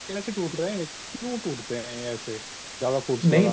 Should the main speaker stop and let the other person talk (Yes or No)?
Yes